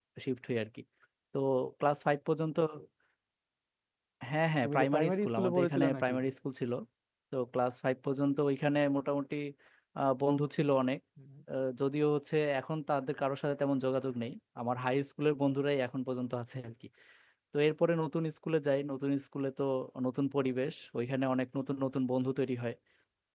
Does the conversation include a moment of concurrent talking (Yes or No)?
Yes